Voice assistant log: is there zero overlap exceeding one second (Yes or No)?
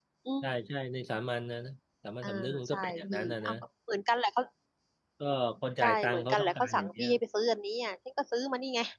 No